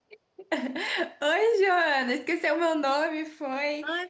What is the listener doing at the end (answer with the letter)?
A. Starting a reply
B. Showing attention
A